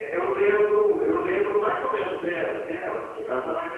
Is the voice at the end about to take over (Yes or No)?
Yes